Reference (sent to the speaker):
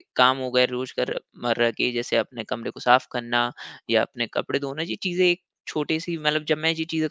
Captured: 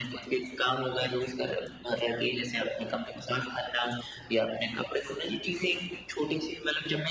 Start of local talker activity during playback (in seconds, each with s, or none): none